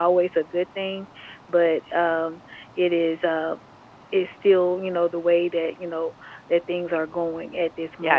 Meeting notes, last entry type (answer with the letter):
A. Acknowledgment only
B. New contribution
B